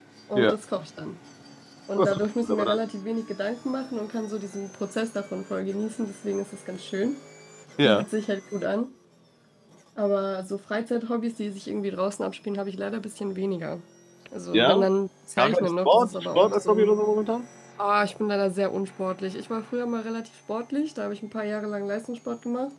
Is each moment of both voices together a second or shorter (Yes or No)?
No